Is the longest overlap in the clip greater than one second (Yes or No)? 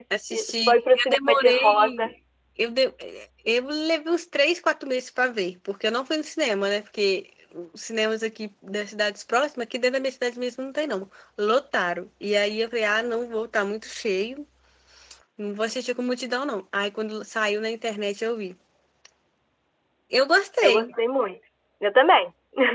Yes